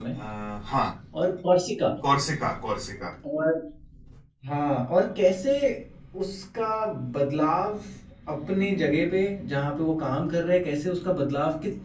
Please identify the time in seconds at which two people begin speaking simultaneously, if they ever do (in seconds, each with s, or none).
none